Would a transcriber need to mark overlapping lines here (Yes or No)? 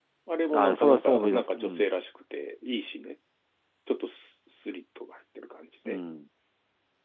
Yes